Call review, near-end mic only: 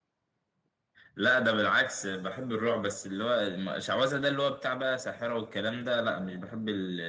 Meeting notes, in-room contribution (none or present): none